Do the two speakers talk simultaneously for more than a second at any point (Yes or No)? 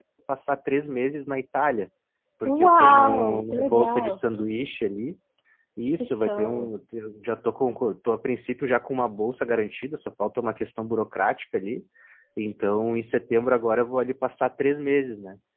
Yes